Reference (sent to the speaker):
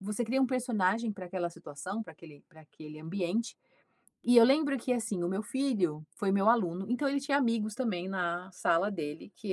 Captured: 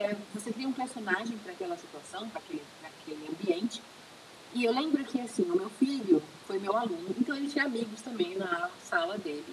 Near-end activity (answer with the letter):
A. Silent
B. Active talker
A